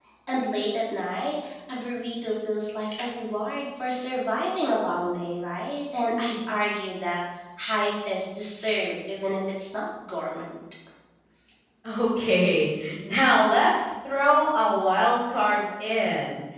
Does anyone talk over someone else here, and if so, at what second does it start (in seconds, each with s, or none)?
none